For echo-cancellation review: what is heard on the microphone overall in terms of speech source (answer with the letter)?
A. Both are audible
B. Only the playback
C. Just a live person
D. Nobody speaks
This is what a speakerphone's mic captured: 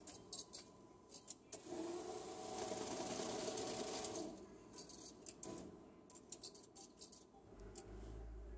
D